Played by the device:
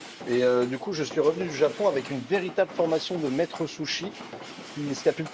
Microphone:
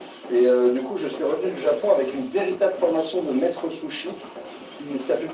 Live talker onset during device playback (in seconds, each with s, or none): none